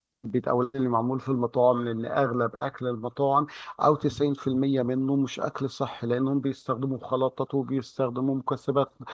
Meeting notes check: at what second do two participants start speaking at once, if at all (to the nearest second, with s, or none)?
none